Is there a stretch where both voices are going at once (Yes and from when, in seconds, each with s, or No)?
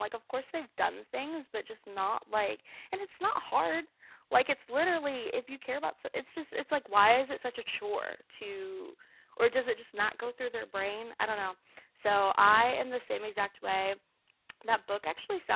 No